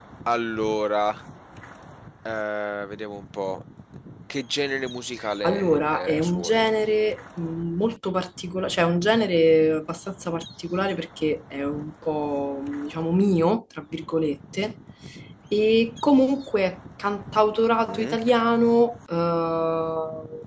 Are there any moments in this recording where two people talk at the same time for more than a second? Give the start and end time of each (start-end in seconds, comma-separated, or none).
5.4-6.7